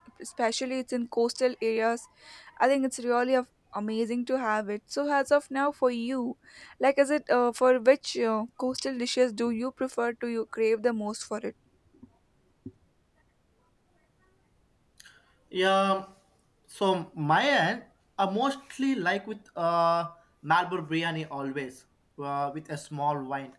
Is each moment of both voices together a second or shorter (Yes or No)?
Yes